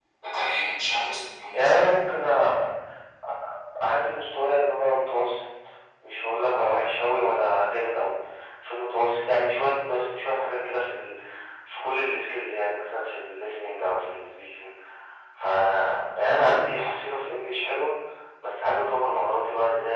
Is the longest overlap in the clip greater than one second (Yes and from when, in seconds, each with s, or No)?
Yes, from 1.0 s